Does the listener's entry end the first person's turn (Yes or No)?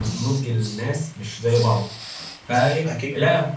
No